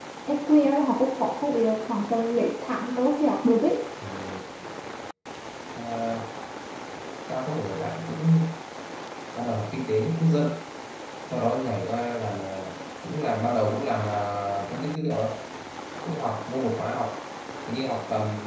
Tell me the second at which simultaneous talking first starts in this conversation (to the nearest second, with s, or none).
none